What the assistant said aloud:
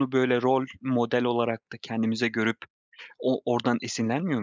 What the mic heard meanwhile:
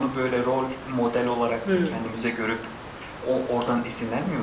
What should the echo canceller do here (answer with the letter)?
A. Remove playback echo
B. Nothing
A